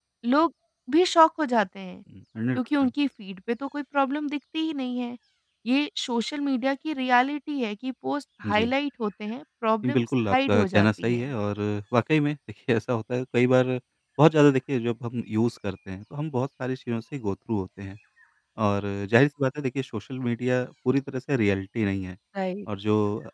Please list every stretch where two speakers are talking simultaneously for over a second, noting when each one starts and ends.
9.8-11.3

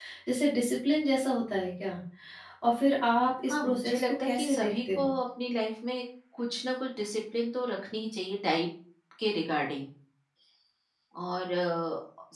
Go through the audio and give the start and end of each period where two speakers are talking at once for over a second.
3.5-5.1

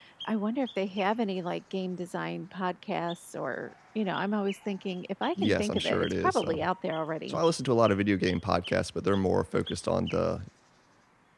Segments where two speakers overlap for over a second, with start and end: 5.4-6.7

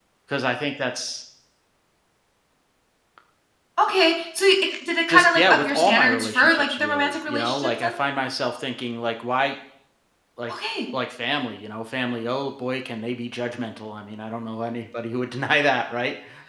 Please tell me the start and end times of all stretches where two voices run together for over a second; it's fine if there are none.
5.1-7.9

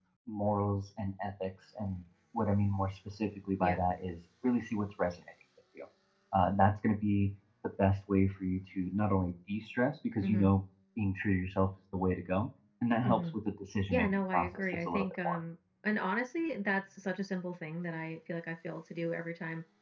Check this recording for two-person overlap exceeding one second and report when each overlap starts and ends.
13.9-15.4

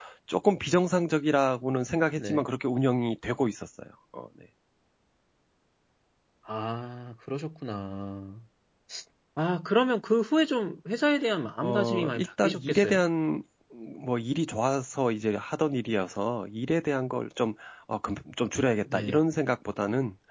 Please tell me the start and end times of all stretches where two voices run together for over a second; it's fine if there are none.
11.6-13.0

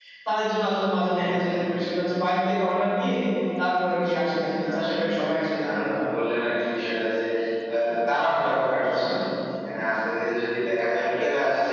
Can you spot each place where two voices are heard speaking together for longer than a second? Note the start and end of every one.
4.0-6.1

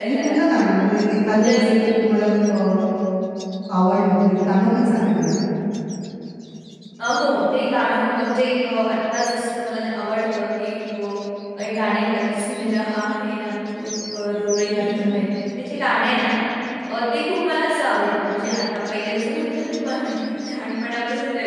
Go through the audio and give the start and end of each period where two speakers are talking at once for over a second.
none

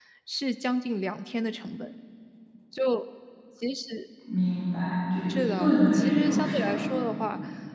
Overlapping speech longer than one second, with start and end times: 5.3-6.8

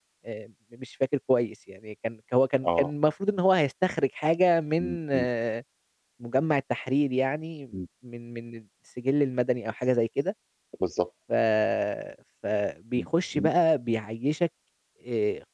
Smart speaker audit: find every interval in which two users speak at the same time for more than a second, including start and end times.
none

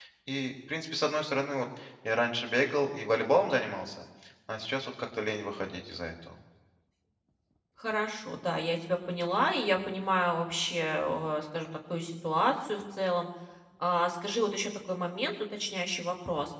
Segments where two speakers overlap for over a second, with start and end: none

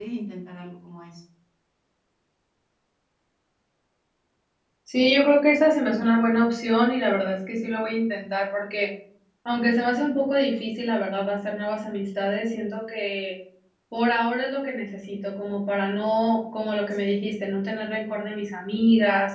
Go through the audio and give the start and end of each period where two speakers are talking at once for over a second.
none

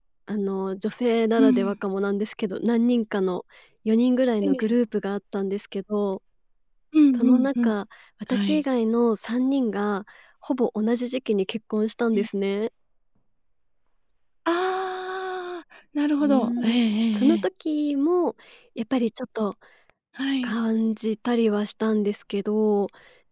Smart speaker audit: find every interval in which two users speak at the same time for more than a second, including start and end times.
none

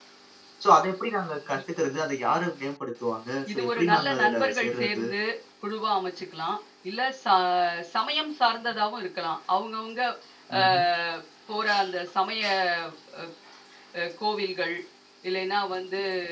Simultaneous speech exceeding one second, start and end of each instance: 3.5-5.0

